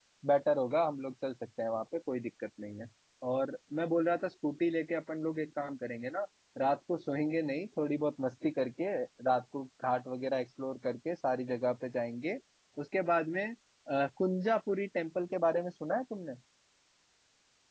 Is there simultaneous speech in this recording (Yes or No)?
No